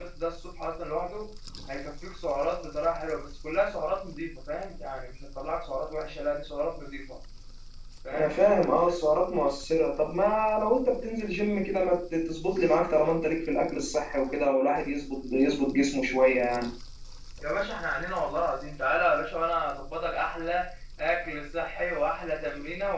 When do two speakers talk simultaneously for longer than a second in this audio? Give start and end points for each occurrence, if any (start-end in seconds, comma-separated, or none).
none